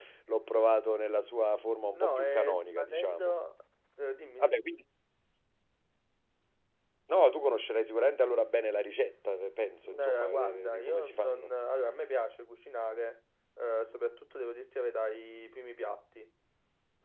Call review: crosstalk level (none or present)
present